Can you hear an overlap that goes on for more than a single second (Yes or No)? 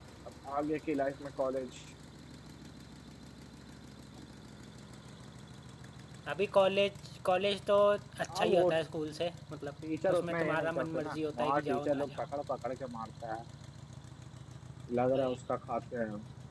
Yes